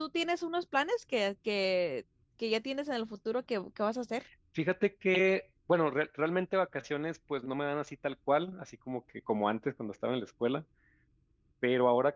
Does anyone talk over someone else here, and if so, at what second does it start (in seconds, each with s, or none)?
none